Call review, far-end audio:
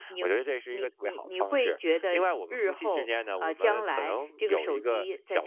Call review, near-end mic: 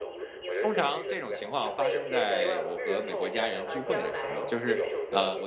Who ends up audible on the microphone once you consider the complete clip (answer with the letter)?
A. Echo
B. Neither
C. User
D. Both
D